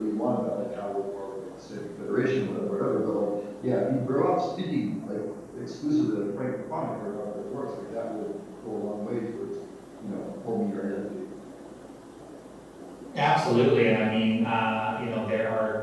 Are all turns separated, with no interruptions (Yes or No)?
Yes